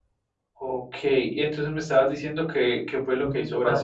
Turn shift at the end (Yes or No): Yes